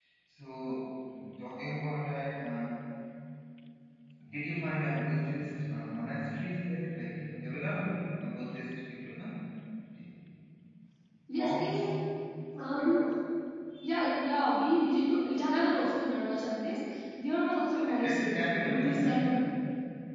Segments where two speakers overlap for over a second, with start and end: 17.9-19.4

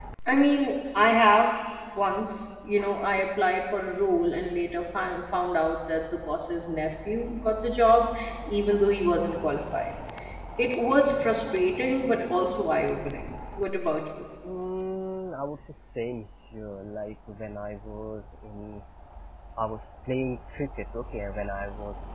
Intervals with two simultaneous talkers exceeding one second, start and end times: none

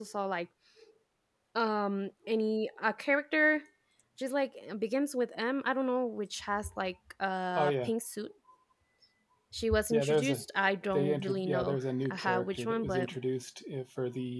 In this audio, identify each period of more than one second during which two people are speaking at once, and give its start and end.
10.9-13.1

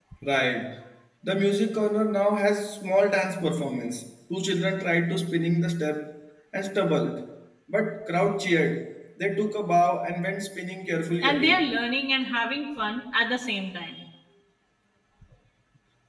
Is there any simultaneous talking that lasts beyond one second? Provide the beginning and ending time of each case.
none

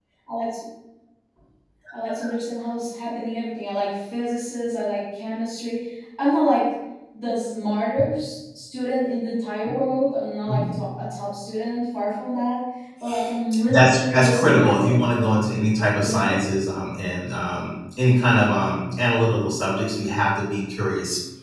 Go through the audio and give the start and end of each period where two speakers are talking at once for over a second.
13.7-15.0

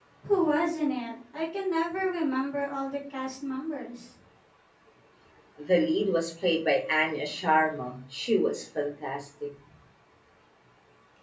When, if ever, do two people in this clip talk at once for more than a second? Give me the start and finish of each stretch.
none

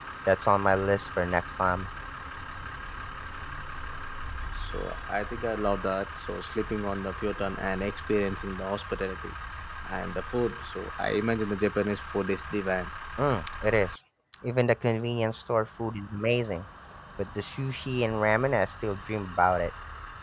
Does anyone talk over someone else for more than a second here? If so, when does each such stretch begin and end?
none

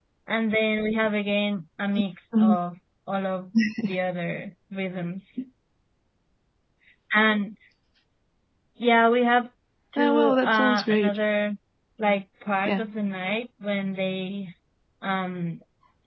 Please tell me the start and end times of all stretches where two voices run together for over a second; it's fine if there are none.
10.0-11.2

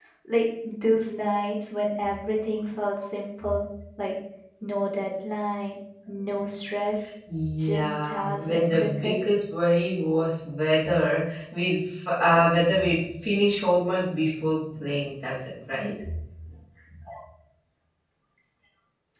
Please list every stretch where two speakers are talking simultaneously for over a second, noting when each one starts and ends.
7.6-9.1

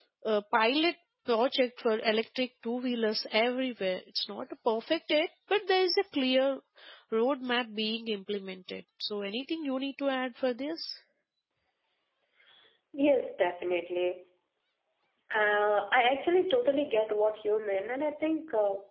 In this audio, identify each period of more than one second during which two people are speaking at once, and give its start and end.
none

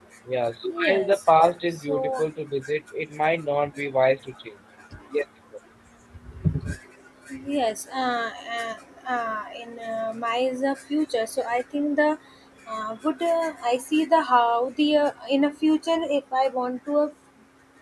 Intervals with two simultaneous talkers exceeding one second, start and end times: 0.7-2.2

